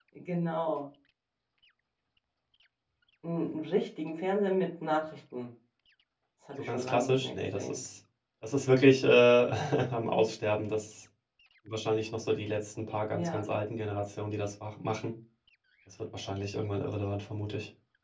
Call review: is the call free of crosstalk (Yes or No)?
No